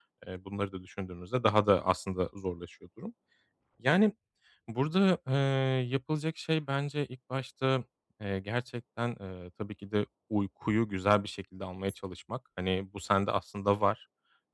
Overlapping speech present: No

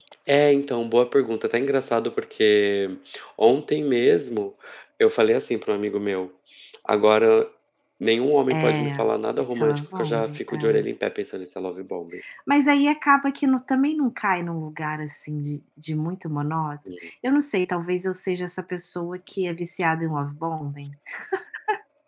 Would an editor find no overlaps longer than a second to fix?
No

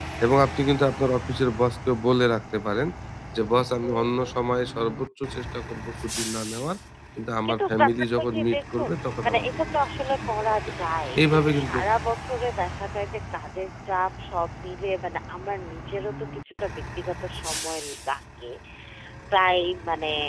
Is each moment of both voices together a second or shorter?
No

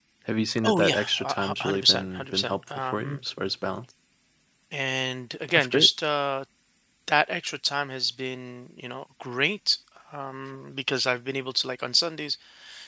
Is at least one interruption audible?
Yes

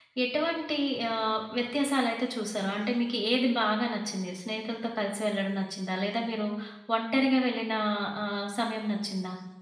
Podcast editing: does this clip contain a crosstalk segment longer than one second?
No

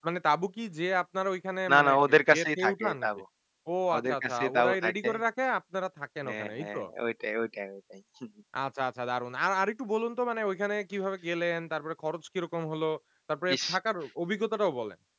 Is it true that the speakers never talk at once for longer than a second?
No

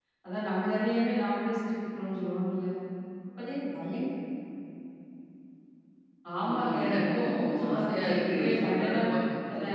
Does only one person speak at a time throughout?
No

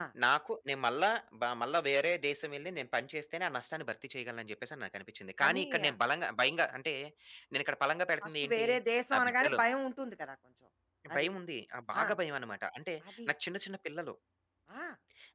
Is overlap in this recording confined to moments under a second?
Yes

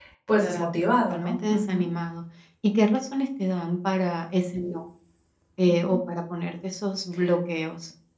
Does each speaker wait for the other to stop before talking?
No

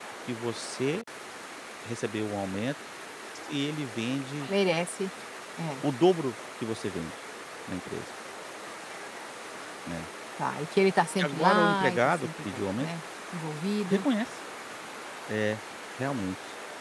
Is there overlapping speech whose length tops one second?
Yes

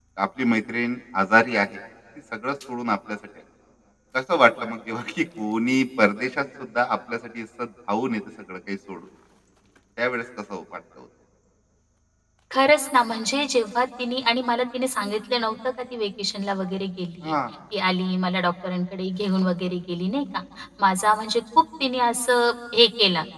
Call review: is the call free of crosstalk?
Yes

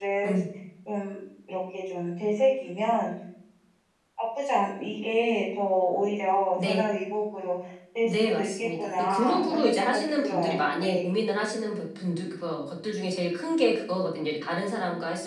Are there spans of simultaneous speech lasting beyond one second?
Yes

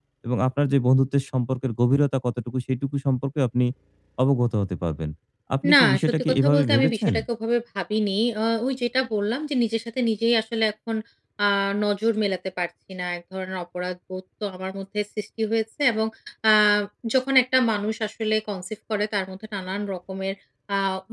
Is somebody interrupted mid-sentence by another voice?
Yes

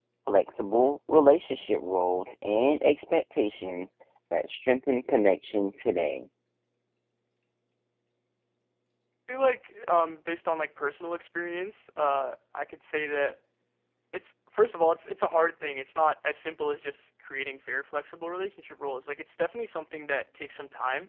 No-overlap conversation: Yes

